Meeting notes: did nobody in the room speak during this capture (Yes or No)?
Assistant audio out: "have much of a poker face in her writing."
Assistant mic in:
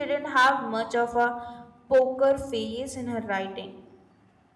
Yes